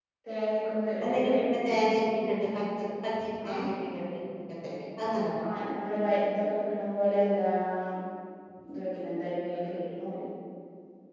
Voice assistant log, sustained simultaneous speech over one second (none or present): none